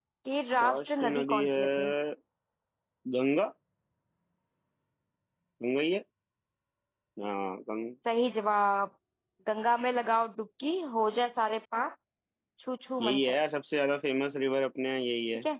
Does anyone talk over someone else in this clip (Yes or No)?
Yes